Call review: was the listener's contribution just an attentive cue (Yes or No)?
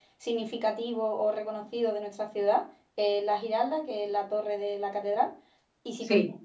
Yes